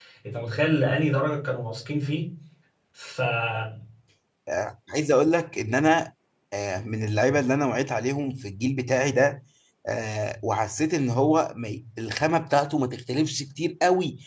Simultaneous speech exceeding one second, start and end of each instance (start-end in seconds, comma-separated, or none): none